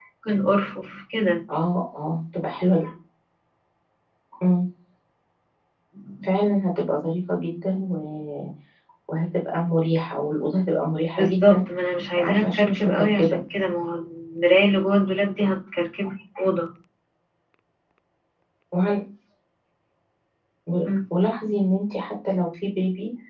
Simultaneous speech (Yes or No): Yes